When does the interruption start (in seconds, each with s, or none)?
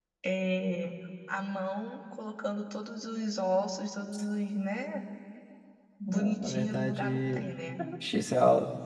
6.1 s